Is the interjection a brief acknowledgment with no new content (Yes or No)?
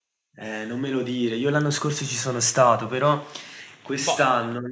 Yes